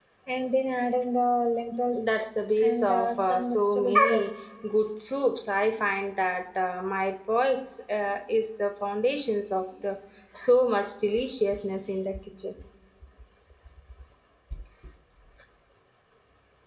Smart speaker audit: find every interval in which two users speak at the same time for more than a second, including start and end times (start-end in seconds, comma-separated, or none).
2.0-4.2